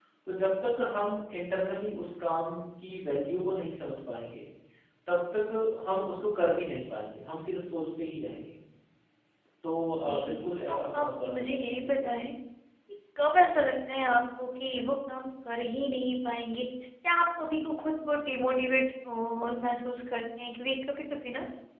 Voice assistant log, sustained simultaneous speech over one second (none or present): present